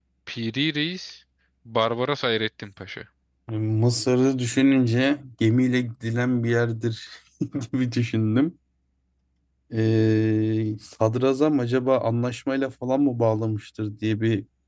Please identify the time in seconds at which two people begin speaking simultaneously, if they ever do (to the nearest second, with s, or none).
none